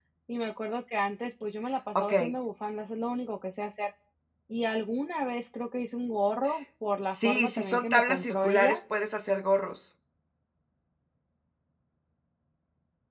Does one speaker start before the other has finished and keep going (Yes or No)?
Yes